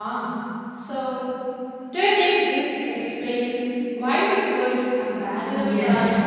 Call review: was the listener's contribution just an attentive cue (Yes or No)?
No